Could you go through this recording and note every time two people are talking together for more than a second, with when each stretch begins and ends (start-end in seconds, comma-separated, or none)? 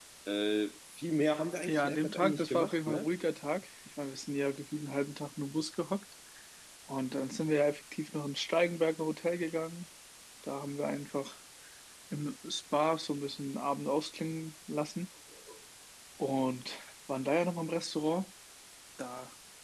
1.7-3.1